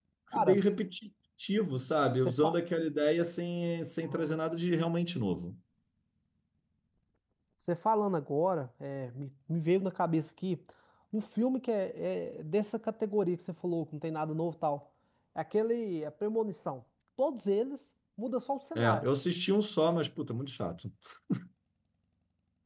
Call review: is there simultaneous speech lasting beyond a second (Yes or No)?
No